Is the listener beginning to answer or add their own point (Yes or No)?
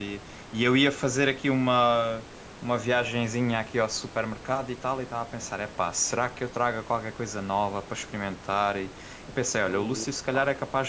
No